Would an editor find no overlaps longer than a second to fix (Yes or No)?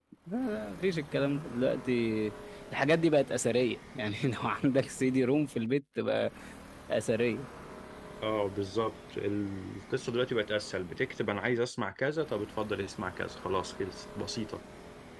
Yes